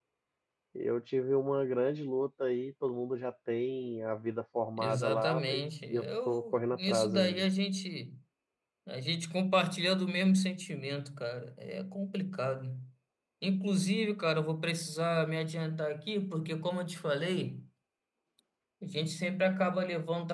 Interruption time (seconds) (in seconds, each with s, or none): 4.8 s